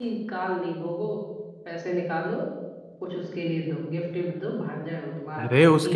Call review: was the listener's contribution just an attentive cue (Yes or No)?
No